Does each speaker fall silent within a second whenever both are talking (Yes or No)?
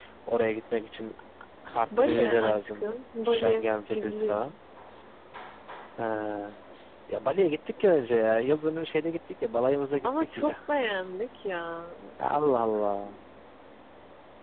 No